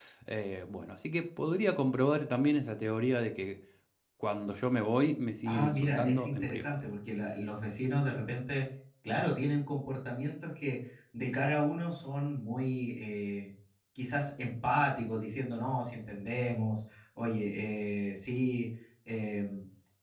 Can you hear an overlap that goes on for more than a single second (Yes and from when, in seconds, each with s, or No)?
Yes, from 5.5 s